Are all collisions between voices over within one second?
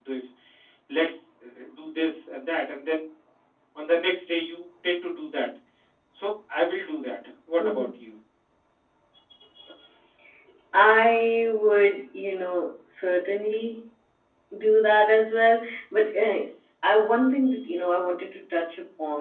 Yes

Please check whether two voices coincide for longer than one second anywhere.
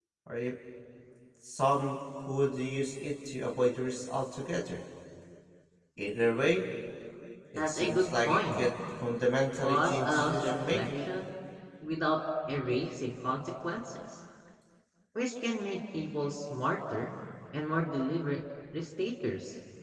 Yes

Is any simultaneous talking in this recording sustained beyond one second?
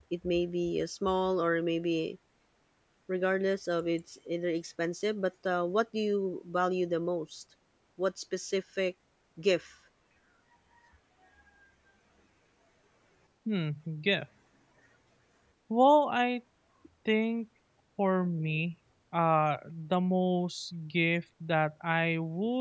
No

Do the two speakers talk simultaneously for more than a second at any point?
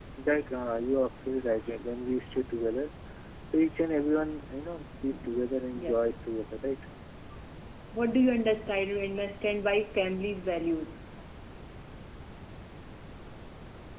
No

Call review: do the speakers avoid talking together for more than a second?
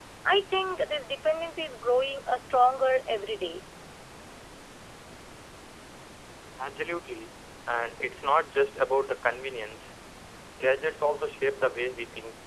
Yes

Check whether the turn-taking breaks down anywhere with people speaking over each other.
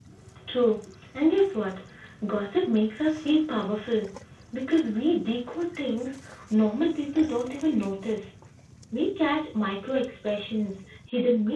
No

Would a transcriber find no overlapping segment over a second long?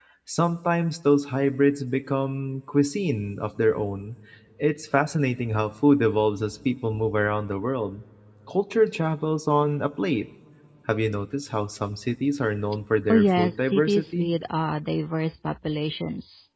No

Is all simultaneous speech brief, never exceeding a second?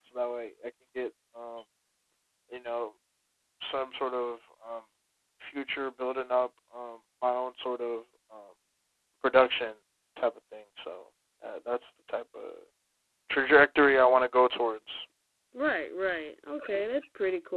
Yes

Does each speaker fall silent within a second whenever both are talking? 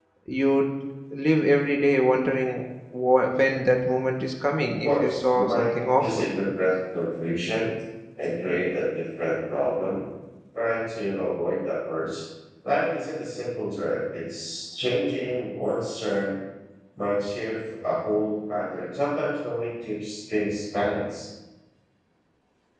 No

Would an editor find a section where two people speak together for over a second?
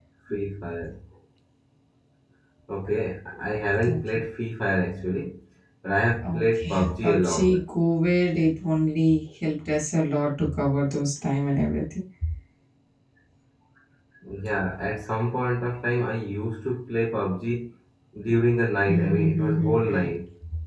Yes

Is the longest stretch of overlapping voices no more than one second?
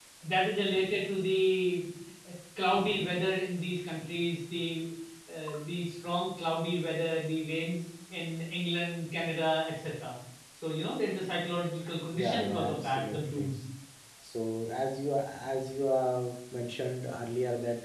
No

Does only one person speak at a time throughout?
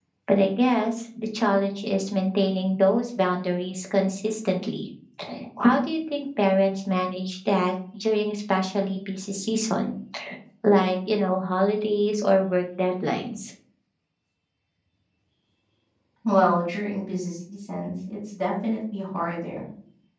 Yes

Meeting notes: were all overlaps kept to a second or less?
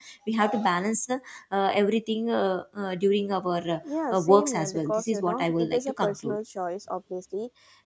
No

